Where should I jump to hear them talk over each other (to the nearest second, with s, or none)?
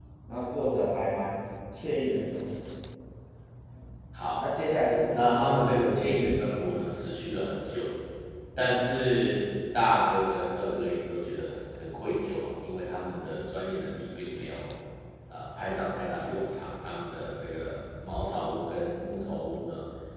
5 s